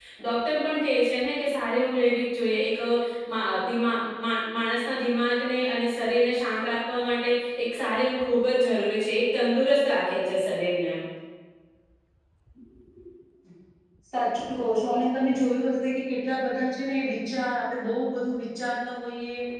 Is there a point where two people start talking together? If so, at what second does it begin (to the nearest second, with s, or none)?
none